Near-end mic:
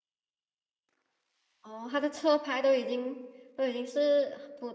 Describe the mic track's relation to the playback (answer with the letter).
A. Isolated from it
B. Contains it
A